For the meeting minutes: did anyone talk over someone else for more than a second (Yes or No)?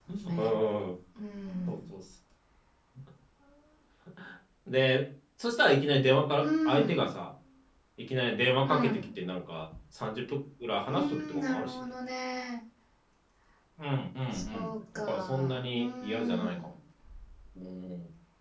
Yes